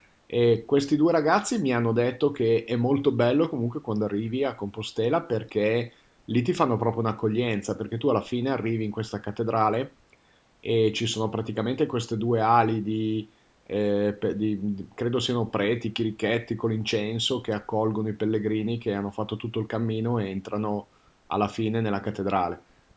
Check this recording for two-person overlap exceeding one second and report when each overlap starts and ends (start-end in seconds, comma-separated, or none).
none